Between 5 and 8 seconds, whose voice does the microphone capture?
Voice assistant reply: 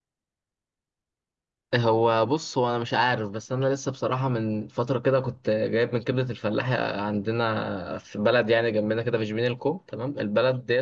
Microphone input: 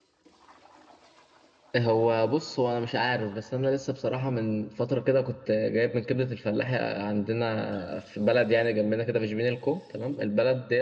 echo only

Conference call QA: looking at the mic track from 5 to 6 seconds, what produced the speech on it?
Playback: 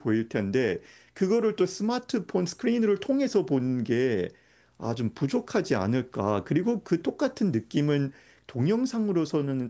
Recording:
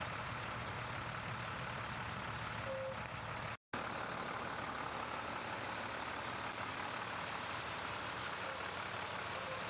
neither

